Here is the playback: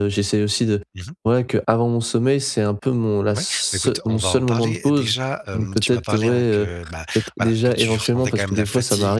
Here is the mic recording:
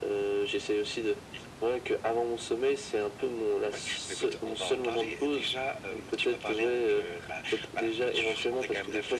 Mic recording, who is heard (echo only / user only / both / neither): echo only